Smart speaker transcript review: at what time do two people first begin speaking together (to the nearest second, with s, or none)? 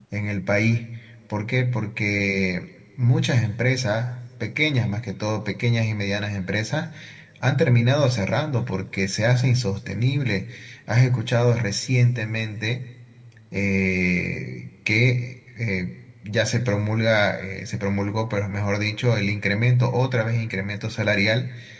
none